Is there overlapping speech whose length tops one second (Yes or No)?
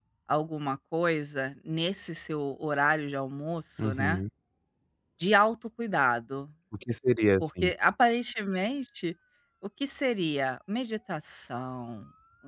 No